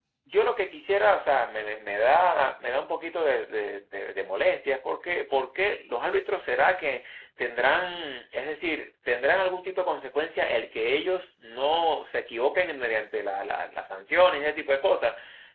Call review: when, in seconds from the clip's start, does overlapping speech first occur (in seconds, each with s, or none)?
none